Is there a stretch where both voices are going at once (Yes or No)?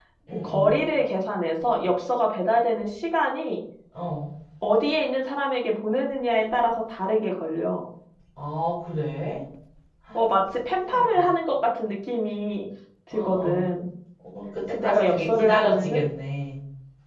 Yes